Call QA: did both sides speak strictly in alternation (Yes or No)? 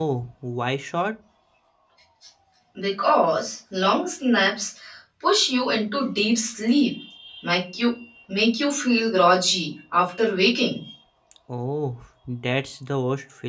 Yes